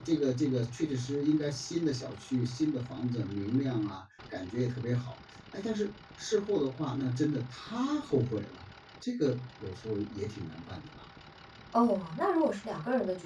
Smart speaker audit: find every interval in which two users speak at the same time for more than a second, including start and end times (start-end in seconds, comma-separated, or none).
none